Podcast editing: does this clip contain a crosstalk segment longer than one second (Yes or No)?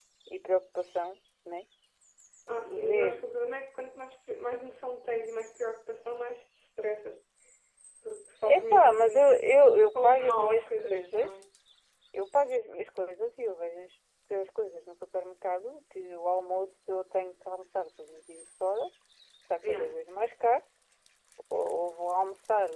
Yes